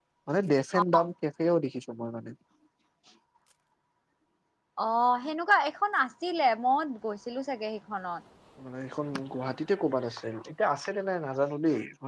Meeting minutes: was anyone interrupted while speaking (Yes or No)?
No